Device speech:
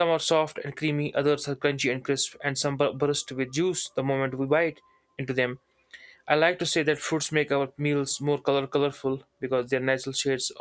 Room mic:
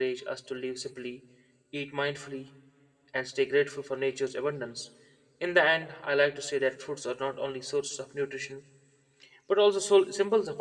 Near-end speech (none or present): present